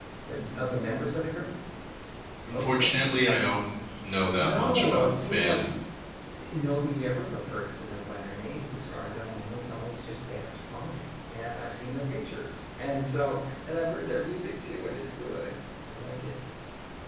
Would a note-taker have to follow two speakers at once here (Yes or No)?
Yes